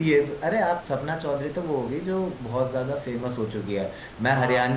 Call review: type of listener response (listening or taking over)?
listening